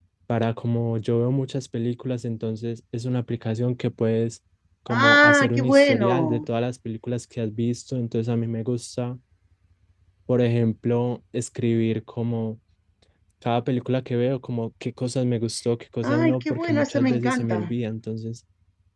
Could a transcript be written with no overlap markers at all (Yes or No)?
No